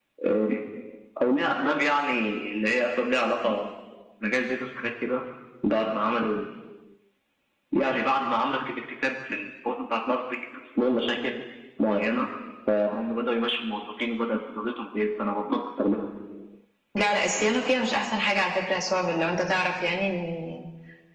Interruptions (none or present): none